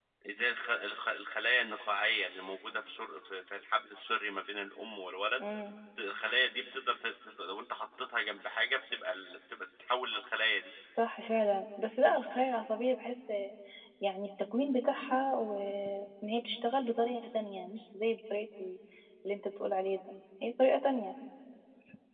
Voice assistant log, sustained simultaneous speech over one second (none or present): none